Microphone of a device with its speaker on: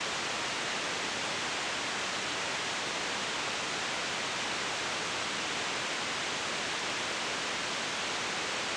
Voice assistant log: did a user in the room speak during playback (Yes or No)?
No